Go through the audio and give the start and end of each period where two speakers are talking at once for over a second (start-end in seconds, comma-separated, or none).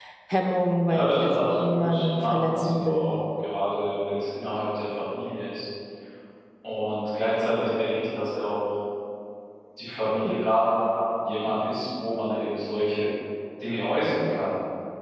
0.9-3.1